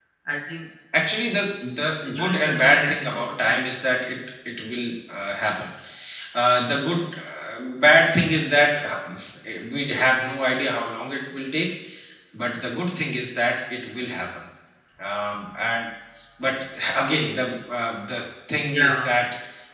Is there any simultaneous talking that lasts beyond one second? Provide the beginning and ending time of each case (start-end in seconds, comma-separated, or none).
1.8-3.7